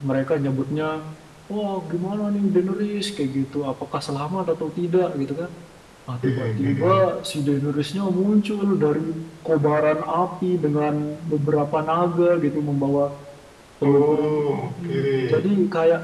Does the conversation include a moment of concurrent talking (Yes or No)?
Yes